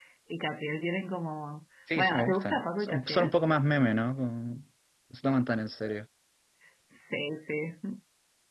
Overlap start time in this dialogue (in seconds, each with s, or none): 1.9 s